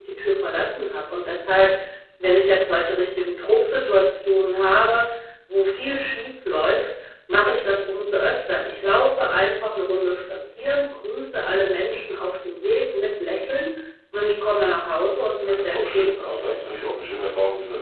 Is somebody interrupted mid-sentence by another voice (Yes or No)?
Yes